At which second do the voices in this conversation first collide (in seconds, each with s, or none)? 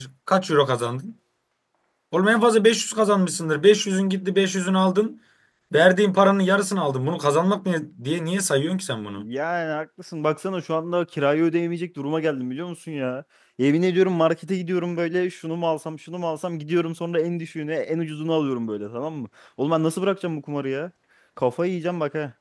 none